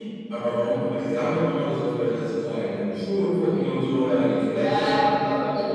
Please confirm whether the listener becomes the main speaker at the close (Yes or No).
Yes